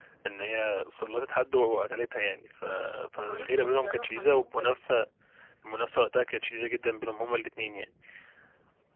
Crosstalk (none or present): present